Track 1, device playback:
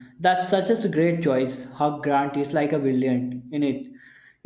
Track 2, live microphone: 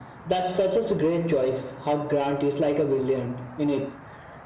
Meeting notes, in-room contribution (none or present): none